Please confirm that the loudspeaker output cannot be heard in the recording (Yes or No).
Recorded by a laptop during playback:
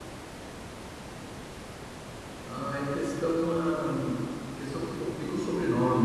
Yes